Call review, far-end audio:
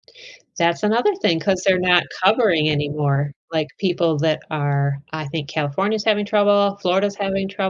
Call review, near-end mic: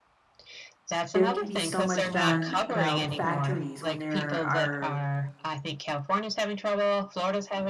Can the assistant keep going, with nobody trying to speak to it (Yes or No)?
No